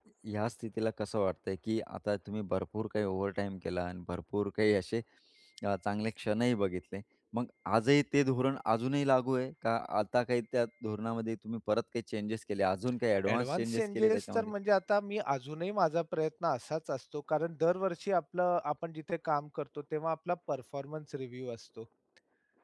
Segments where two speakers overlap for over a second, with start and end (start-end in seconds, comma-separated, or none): 13.3-14.5